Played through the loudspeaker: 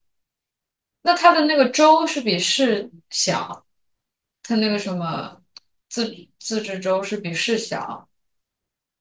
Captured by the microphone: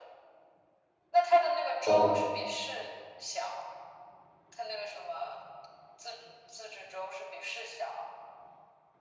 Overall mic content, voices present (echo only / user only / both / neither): both